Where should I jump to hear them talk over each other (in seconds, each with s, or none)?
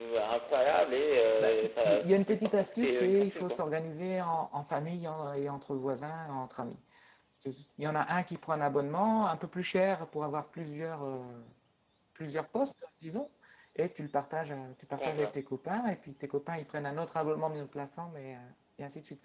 1.4 s